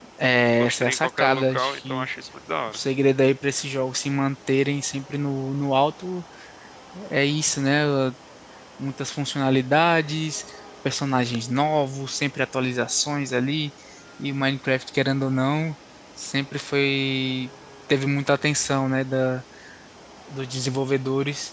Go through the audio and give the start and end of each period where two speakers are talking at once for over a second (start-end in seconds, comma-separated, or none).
0.6-2.1